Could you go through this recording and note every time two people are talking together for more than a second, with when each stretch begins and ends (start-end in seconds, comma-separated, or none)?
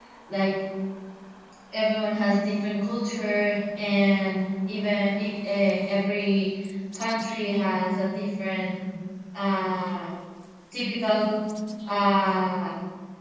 none